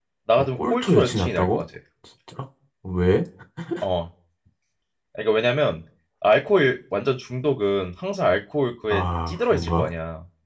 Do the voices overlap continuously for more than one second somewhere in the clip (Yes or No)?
Yes